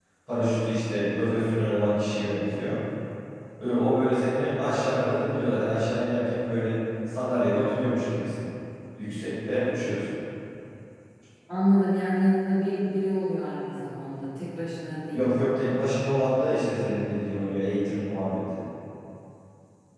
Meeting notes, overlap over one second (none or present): none